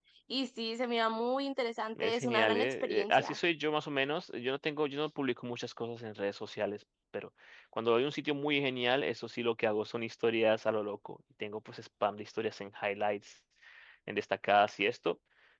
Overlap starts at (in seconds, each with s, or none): 2.0 s